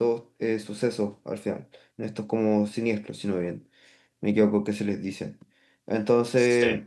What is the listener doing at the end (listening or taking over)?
listening